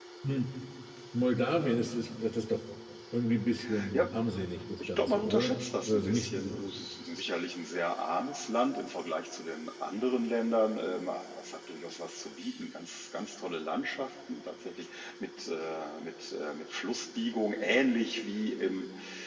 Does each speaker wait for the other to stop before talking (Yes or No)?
No